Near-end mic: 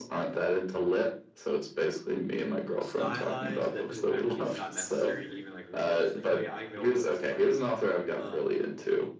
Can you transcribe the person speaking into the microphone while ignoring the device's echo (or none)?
stylized that people kind of think it's not necessary to even like read it. Just like oh yeah, I know what it's like. Uh,